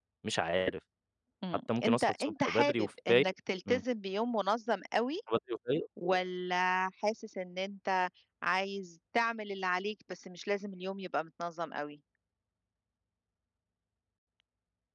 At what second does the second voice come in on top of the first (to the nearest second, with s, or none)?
2 s